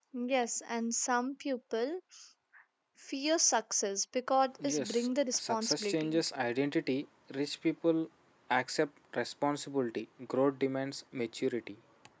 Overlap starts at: 5 s

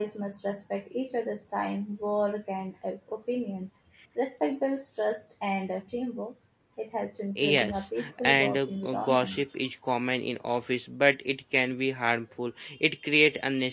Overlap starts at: 7 s

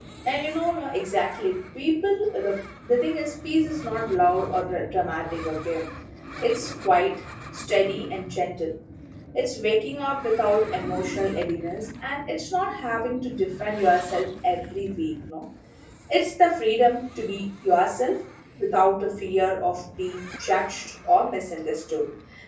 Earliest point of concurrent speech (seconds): none

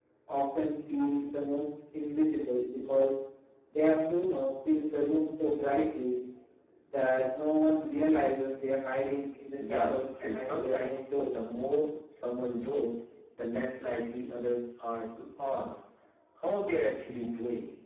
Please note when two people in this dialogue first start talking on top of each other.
10 s

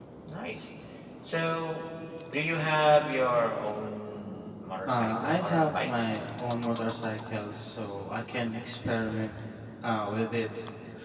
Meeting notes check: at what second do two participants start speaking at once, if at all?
5 s

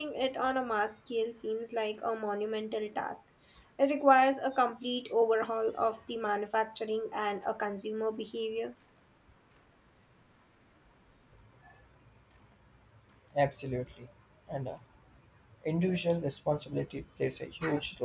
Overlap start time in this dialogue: none

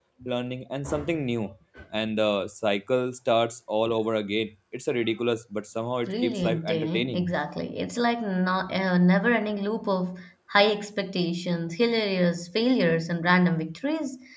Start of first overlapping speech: 6 s

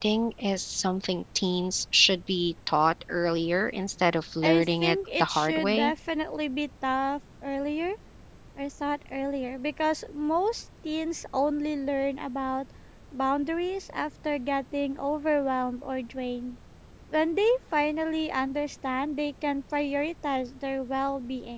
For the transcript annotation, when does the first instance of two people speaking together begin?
4 s

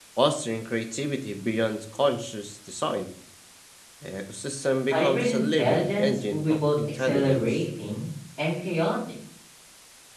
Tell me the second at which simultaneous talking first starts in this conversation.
5 s

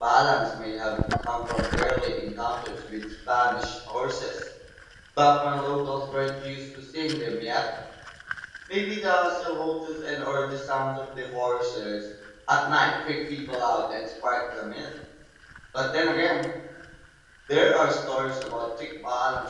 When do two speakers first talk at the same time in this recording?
none

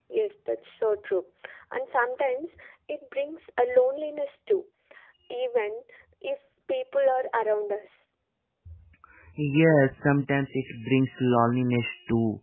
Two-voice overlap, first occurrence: none

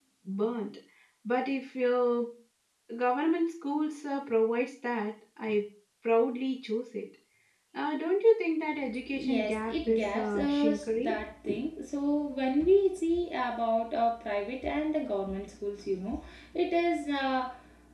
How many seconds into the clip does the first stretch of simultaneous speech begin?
9 s

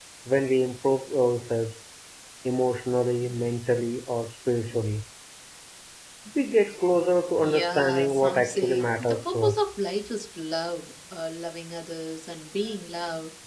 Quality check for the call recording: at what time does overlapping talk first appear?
7 s

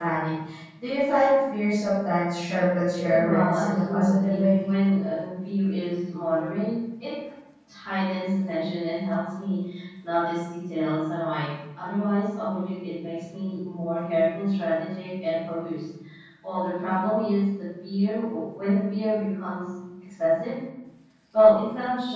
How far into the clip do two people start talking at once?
3 s

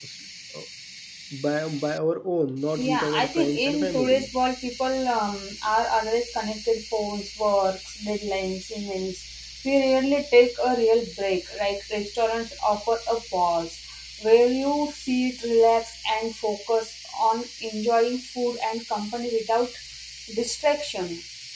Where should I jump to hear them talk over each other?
3 s

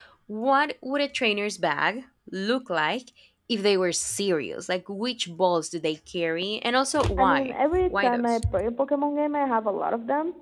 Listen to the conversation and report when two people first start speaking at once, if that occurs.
7 s

